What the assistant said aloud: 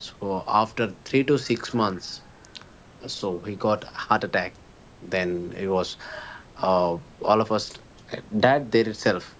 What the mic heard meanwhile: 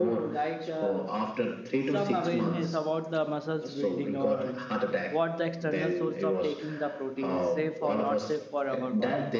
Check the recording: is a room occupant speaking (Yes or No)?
Yes